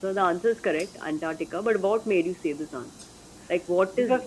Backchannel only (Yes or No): No